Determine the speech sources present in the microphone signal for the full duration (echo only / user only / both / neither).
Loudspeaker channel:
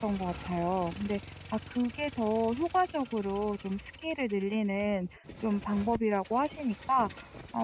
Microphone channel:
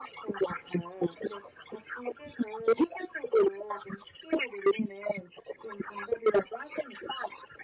echo only